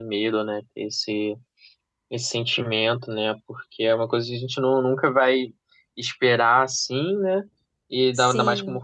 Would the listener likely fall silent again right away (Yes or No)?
Yes